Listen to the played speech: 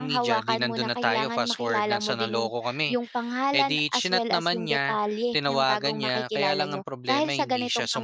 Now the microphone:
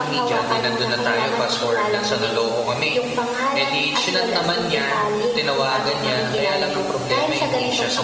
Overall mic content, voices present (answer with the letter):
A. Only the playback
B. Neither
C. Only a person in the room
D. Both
A